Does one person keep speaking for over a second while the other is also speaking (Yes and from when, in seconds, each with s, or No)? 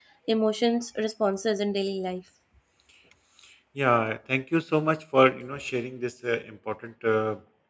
No